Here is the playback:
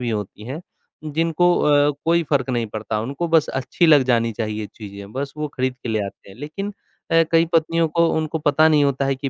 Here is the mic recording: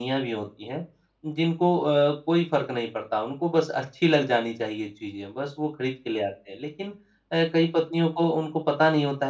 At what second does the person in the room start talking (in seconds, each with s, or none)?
none